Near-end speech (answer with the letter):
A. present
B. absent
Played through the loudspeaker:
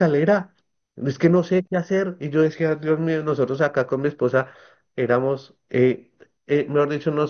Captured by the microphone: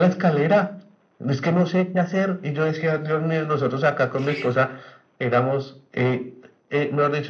A